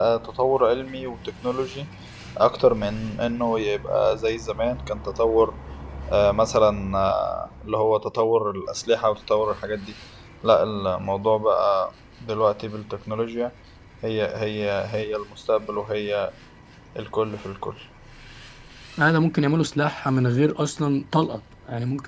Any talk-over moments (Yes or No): No